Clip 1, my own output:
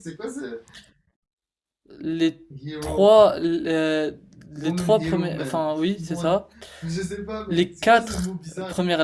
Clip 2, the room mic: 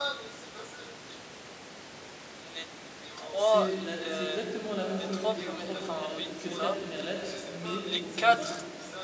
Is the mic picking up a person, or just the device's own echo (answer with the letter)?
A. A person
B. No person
A